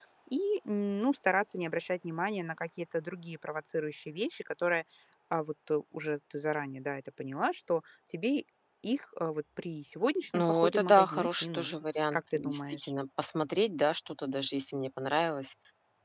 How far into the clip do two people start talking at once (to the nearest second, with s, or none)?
10 s